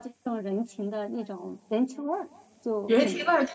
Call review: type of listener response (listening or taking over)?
taking over